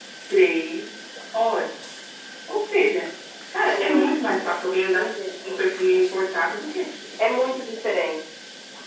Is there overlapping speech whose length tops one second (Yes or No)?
Yes